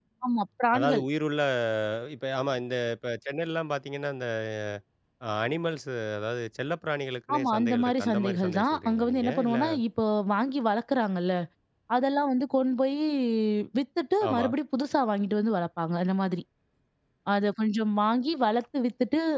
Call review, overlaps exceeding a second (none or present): present